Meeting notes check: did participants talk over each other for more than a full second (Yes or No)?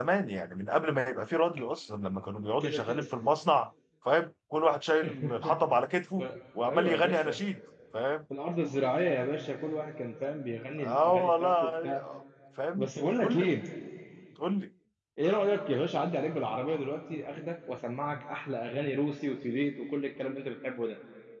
Yes